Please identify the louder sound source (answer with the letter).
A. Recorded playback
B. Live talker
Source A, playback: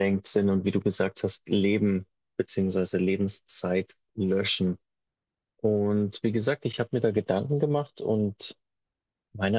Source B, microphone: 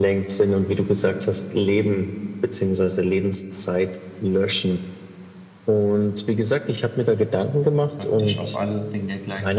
A